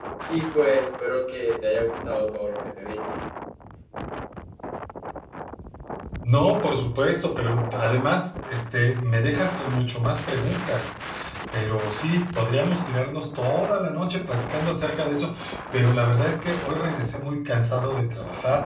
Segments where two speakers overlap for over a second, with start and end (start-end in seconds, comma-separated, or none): none